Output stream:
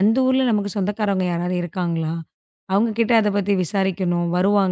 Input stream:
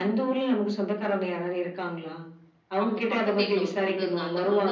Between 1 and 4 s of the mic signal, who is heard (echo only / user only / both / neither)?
both